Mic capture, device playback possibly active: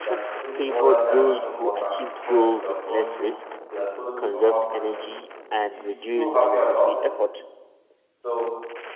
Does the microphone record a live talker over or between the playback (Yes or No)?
Yes